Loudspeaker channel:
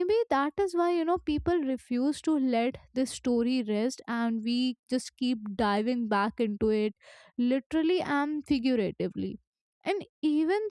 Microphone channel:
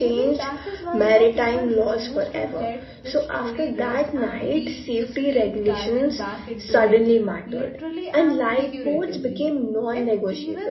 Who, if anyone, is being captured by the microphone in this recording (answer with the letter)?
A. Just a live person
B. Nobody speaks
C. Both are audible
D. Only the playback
C